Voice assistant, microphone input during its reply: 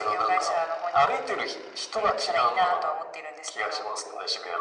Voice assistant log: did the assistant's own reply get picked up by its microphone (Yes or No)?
Yes